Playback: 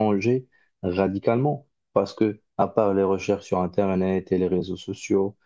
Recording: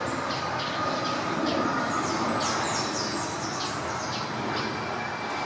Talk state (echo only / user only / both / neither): neither